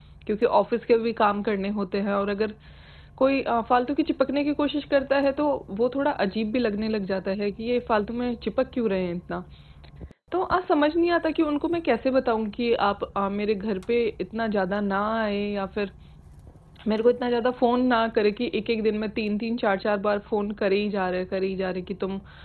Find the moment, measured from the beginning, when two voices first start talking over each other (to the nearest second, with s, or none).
none